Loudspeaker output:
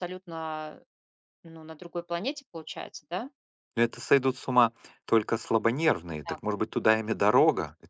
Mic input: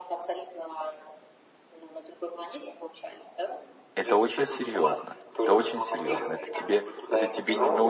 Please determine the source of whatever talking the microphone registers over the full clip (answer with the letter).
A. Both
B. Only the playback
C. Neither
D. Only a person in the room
A